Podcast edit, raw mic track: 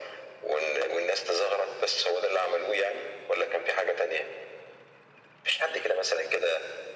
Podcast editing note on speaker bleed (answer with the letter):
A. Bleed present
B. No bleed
A